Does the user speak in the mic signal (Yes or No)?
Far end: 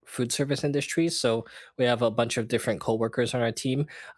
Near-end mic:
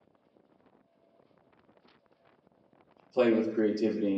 Yes